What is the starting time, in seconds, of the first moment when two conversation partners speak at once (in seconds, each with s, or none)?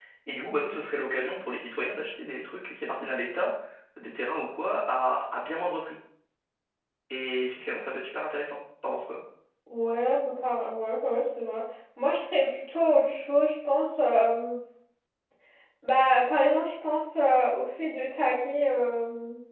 none